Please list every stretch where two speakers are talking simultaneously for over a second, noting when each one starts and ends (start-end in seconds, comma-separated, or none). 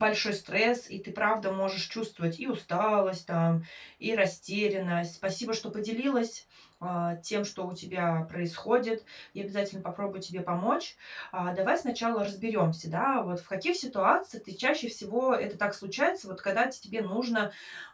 none